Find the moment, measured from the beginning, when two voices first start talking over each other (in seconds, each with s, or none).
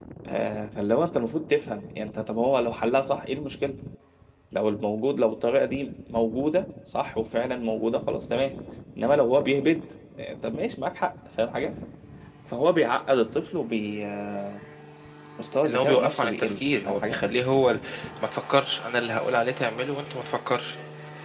15.7 s